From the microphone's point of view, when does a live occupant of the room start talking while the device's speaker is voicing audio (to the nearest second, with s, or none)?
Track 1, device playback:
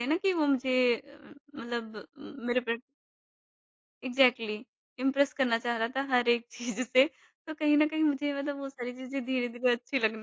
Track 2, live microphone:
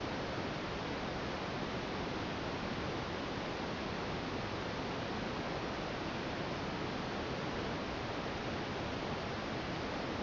none